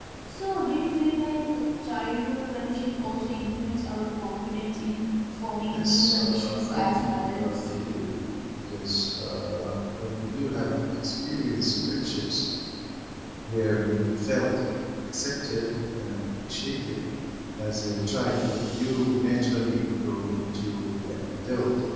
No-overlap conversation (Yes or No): No